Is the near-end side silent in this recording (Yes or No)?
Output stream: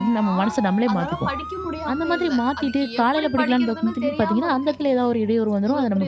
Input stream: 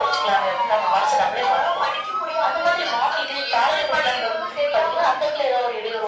Yes